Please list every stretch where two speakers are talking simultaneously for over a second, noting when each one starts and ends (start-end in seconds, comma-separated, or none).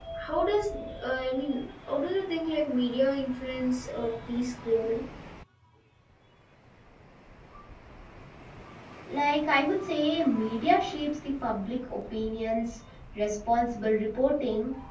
none